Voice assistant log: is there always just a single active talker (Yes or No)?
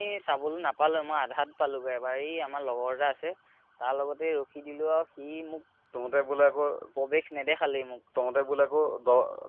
Yes